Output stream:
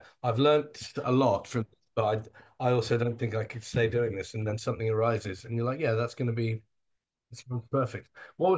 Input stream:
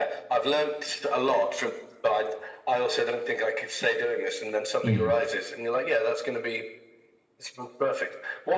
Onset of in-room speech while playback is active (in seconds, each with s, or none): 4.8 s